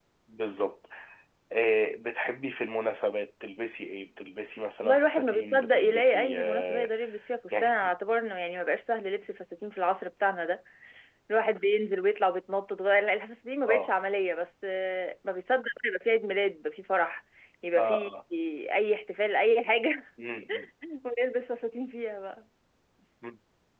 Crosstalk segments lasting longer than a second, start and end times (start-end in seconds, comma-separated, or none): 4.8-6.9